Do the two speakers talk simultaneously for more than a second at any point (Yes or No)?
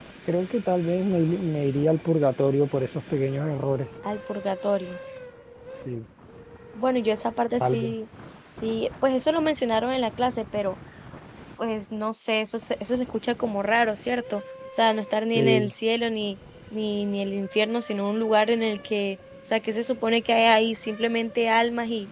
No